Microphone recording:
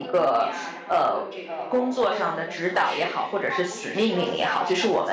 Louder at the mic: user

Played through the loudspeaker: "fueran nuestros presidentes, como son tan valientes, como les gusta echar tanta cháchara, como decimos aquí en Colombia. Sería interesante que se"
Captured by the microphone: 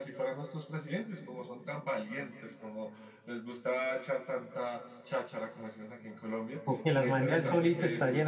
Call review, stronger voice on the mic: user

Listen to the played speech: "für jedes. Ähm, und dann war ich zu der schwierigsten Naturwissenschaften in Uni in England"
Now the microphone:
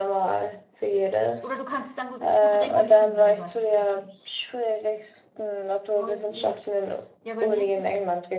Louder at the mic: echo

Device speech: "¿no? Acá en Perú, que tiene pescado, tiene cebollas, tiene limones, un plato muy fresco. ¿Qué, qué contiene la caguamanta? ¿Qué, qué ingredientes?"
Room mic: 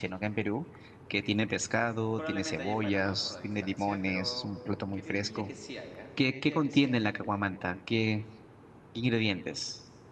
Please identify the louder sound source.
echo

